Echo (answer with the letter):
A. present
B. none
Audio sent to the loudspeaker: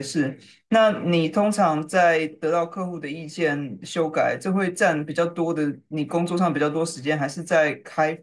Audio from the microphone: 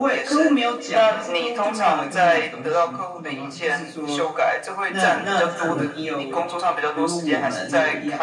A